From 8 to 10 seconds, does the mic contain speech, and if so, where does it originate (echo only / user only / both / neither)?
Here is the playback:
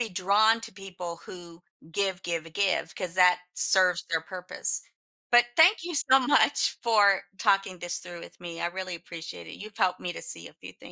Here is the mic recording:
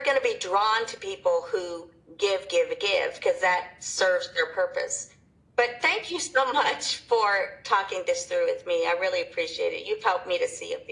echo only